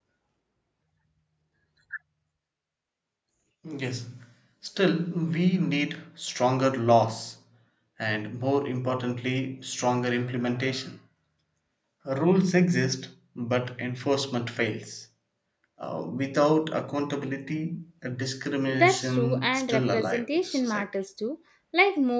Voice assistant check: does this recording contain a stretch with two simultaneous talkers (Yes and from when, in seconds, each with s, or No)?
Yes, from 18.7 s